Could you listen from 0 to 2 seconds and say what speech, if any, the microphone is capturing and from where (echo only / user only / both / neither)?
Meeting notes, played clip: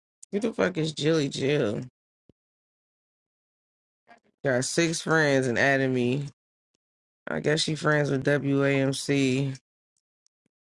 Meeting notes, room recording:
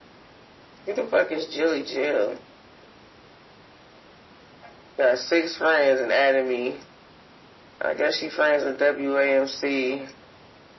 echo only